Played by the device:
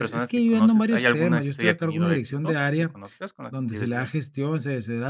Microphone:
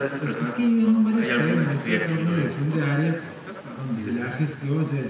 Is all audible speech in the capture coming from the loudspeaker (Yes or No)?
Yes